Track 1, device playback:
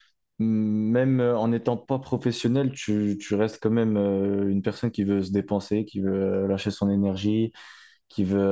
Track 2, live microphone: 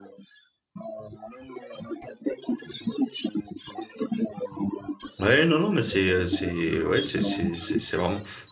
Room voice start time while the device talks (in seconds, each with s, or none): 5.2 s